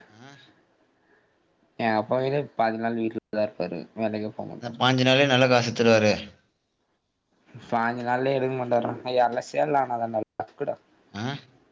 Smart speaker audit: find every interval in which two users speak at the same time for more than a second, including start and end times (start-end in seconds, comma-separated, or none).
none